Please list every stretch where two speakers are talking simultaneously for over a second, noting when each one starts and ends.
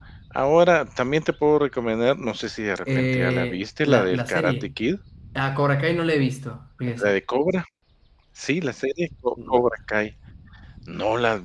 2.9-4.5

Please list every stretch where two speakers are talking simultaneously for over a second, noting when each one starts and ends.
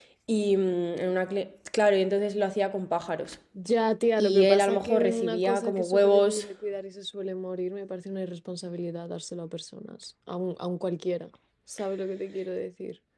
4.2-6.5

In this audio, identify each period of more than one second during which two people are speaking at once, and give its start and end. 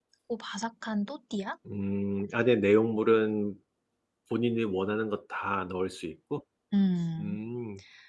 none

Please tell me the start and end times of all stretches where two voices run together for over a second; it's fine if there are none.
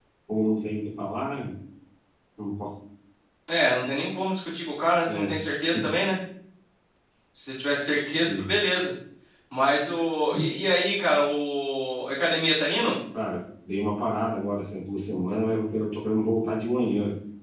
none

